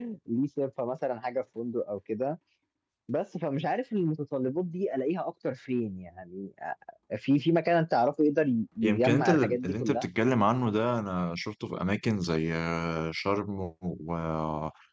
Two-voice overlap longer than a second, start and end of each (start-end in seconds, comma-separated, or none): 8.8-10.1